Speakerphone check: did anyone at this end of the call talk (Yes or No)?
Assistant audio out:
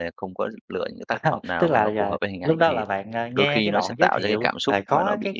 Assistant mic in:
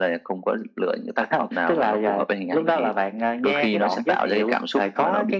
No